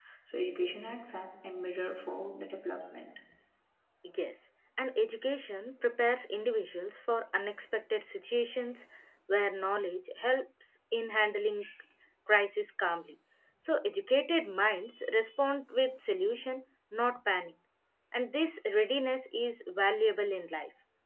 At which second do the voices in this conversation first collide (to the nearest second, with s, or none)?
none